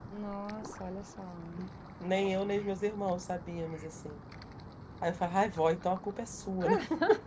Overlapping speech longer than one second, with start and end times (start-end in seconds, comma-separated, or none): none